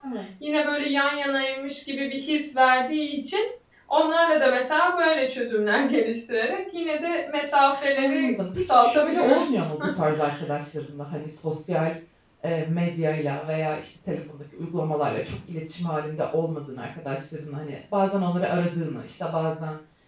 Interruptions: present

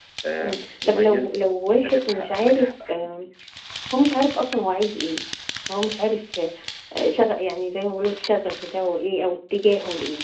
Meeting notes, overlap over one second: present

